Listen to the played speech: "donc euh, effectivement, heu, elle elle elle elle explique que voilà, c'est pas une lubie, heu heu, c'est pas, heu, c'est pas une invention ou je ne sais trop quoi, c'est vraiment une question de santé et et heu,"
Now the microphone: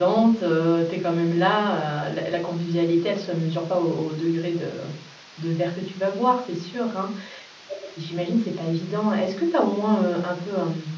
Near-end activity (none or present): present